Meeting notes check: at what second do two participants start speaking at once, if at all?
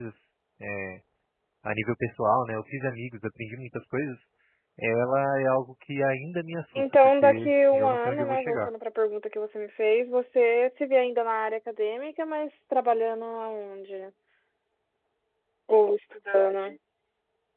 6.8 s

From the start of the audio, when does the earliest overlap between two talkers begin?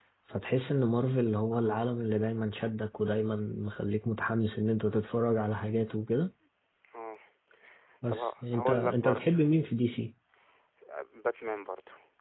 8.1 s

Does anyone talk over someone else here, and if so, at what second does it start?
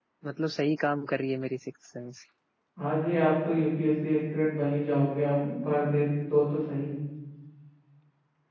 none

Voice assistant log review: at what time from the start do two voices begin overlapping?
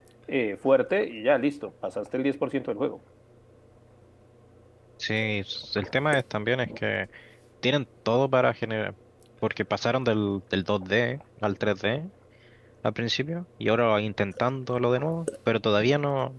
none

